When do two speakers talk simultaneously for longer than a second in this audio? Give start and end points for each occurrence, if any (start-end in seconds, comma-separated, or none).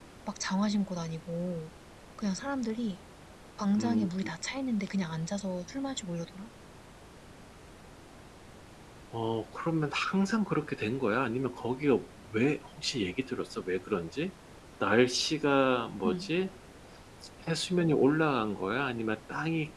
none